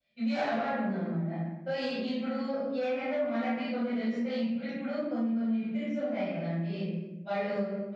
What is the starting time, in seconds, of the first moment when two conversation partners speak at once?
none

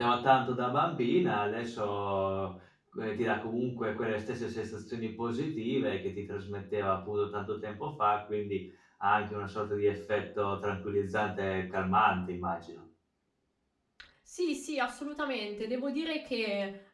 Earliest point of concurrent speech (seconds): none

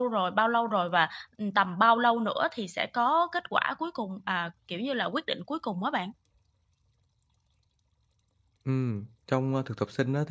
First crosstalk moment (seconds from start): none

